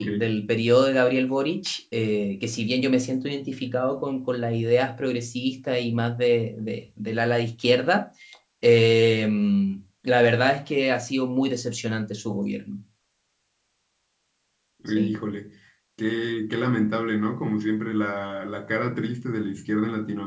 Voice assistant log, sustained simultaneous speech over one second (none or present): none